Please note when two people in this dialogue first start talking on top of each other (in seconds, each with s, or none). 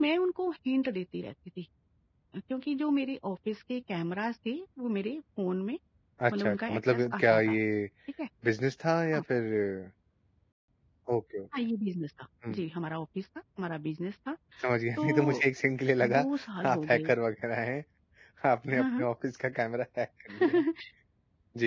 6.3 s